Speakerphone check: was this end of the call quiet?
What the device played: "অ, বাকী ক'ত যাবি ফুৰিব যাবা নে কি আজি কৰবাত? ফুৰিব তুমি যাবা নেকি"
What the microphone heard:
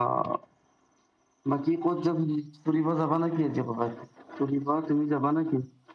Yes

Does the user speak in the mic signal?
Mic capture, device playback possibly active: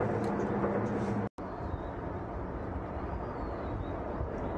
No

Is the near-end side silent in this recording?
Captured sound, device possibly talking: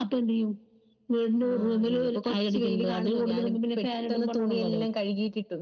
Yes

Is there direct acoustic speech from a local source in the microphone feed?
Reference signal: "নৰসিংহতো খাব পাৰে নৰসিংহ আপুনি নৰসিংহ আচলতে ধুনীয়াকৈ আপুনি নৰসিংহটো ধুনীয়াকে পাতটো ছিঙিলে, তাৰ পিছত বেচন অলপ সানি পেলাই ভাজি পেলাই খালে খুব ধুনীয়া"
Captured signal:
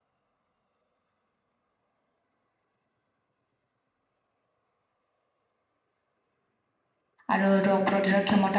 Yes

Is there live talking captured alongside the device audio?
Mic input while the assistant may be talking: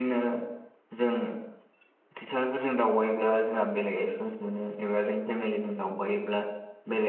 Yes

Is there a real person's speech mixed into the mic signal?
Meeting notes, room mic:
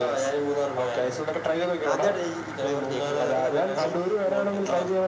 Yes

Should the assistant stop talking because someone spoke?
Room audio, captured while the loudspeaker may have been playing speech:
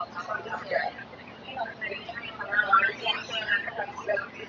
No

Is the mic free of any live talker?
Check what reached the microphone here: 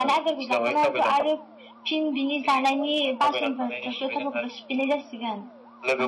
Yes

